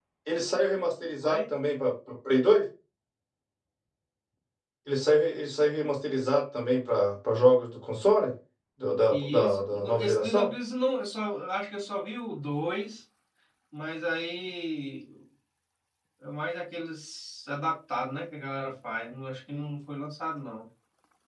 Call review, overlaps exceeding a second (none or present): present